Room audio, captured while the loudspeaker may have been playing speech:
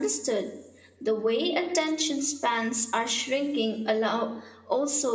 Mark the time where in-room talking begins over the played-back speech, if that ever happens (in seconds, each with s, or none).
none